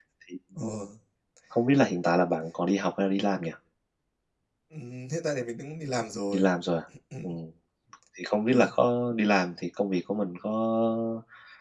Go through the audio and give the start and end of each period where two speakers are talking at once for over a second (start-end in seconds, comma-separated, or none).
none